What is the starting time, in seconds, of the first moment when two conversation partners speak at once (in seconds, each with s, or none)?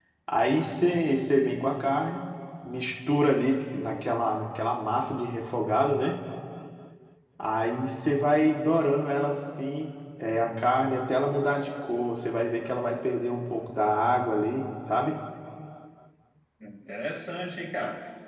none